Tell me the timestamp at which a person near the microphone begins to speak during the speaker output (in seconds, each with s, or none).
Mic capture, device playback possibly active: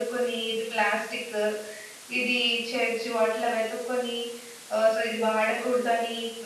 none